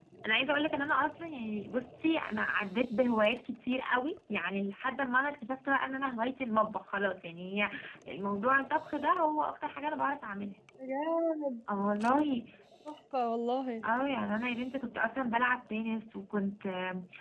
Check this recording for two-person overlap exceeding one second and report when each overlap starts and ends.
none

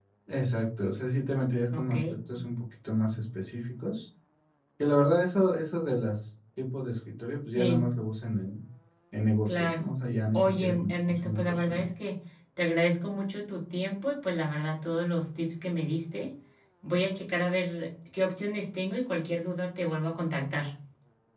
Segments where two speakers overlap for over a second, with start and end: 10.3-11.8

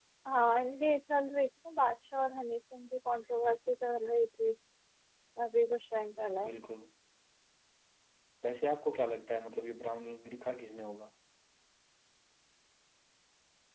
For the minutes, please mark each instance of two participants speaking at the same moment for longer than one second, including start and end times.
none

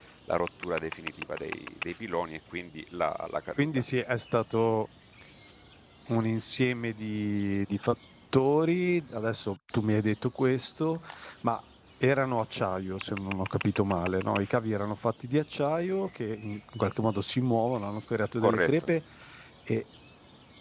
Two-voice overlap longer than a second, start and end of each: none

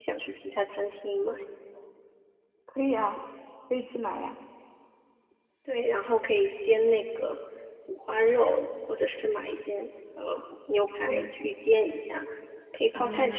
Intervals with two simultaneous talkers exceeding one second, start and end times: none

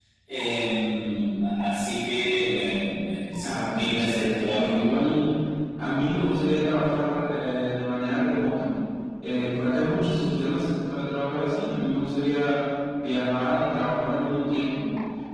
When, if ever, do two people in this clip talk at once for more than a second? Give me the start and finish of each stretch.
3.4-5.1

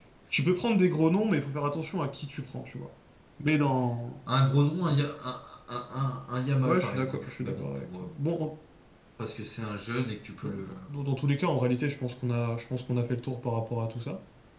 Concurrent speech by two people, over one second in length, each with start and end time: 6.6-8.1

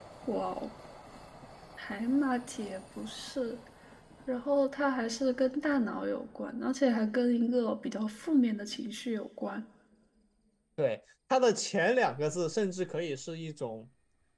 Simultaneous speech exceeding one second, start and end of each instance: none

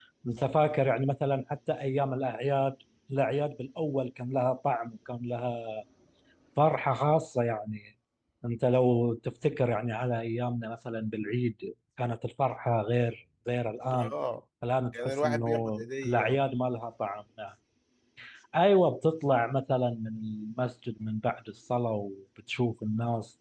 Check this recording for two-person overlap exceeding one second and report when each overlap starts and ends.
15.0-16.4

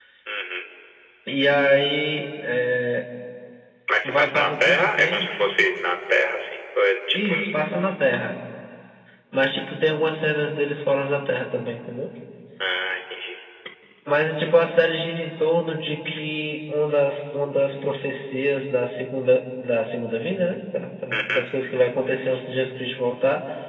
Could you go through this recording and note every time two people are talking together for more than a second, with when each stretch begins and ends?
4.0-5.3

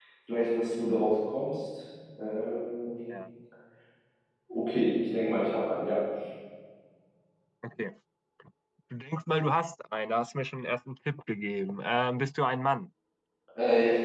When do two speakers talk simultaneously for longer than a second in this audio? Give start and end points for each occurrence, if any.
none

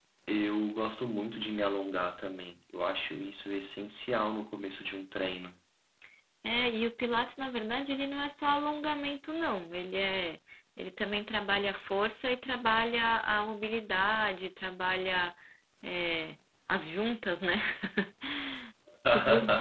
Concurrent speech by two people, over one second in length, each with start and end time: none

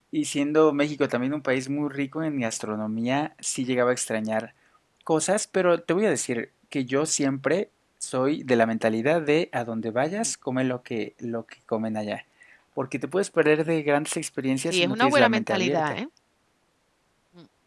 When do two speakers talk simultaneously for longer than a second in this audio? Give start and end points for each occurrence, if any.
14.7-16.0

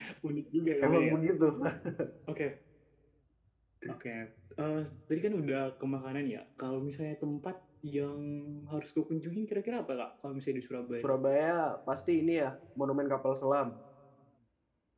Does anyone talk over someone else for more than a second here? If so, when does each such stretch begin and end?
none

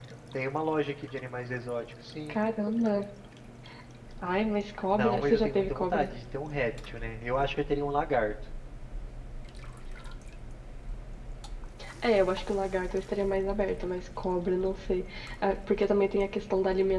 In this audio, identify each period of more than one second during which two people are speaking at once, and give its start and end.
4.9-6.1

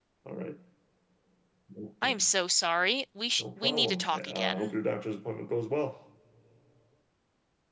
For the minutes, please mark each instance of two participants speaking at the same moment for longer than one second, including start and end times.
3.4-4.7

